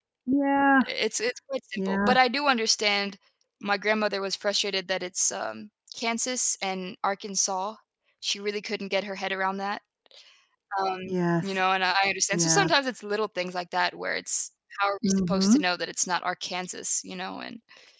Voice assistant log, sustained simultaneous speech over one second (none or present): none